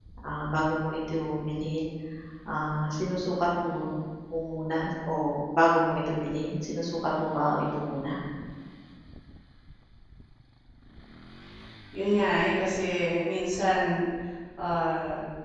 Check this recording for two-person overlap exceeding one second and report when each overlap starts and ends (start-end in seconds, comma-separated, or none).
none